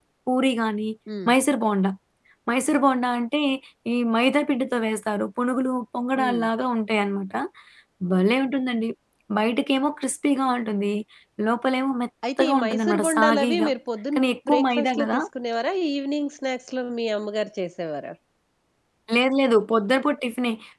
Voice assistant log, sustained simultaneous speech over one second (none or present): present